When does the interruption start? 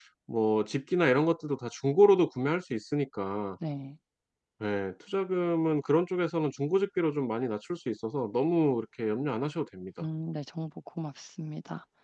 none

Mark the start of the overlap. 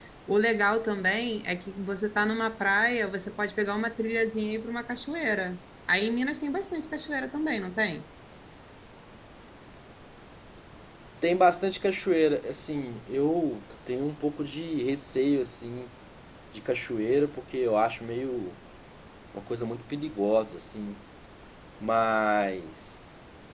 none

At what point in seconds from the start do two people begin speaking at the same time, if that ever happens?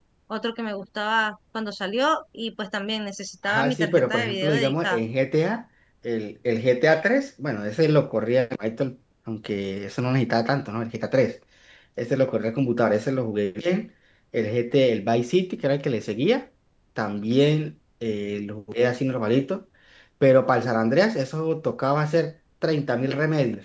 3.5 s

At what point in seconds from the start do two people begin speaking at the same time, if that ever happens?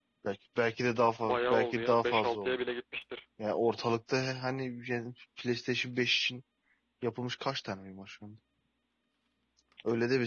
1.2 s

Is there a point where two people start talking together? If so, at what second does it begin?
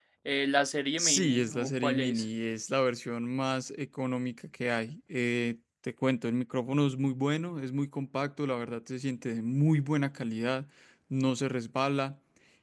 1.0 s

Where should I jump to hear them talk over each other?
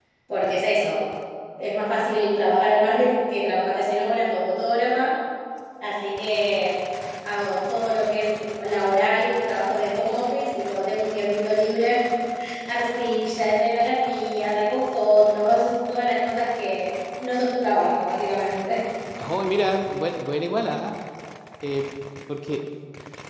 none

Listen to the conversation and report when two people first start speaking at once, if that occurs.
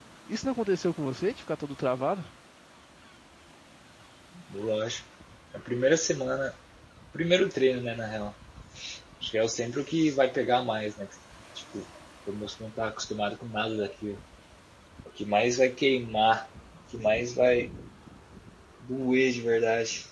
none

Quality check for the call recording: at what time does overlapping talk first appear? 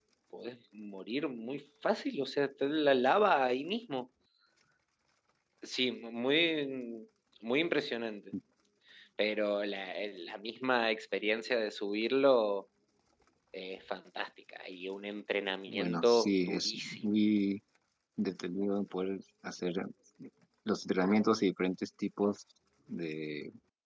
15.7 s

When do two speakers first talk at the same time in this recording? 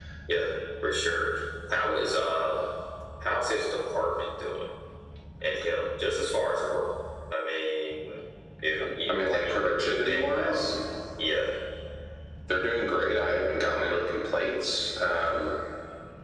8.8 s

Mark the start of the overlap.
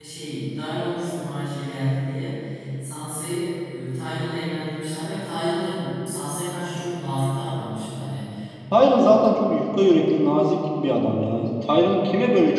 none

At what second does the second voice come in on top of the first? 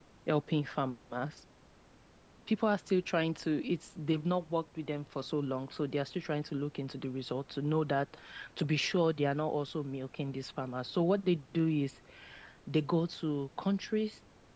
none

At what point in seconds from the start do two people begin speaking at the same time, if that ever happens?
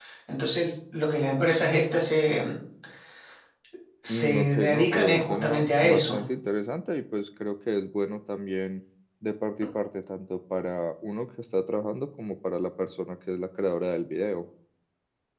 4.1 s

